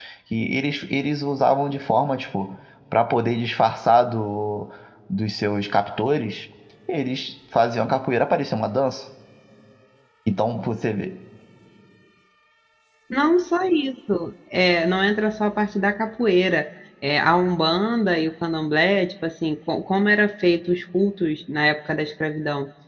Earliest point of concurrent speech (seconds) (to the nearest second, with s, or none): none